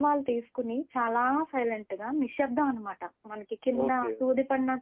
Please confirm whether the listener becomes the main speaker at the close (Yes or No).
Yes